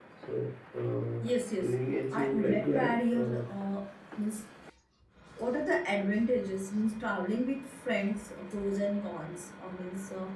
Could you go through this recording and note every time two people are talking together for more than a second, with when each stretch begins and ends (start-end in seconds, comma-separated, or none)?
2.1-3.4